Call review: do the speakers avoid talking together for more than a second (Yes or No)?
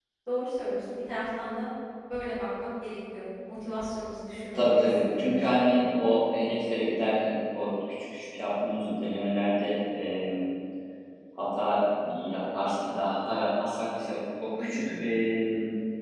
No